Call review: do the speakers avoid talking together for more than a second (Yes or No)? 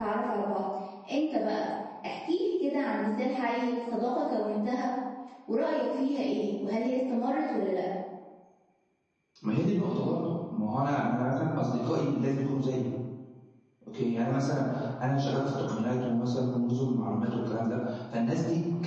Yes